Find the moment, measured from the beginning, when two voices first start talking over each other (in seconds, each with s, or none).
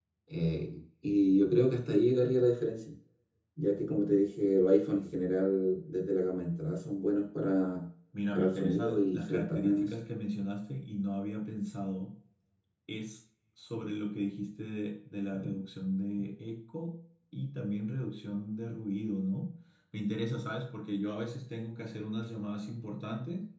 8.3 s